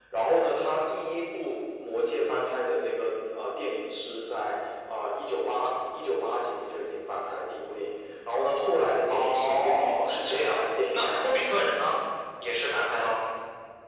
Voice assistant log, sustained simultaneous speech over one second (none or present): present